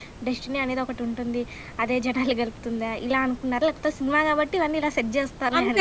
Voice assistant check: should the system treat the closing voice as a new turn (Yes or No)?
Yes